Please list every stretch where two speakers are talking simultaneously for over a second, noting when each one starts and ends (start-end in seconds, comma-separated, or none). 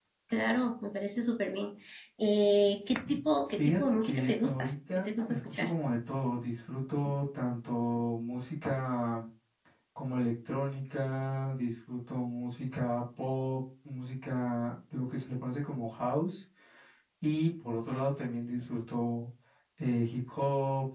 3.6-5.7